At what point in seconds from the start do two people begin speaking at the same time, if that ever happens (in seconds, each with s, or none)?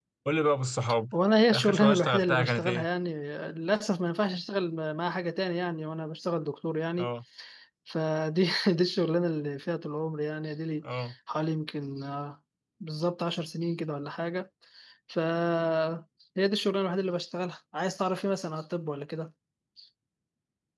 1.5 s